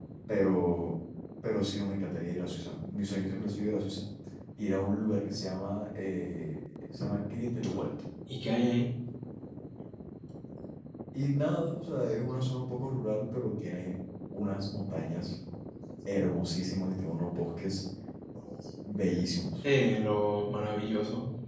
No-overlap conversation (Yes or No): Yes